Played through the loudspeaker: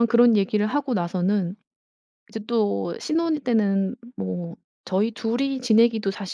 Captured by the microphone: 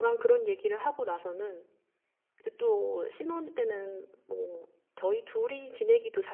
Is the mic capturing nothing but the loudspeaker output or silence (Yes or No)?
Yes